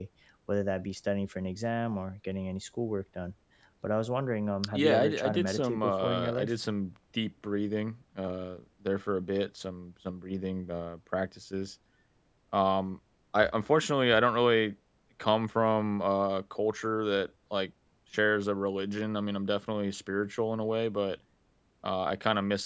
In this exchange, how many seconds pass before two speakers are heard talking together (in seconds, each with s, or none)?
4.7 s